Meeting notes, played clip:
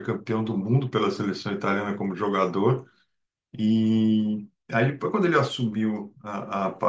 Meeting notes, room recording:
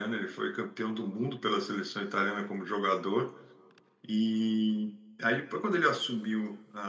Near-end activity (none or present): none